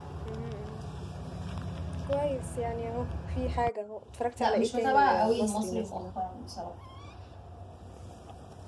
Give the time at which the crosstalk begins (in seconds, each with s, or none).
4.4 s